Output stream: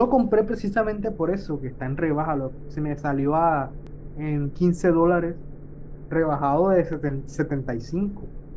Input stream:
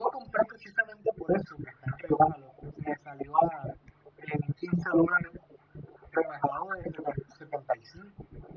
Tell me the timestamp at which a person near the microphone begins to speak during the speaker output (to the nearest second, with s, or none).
none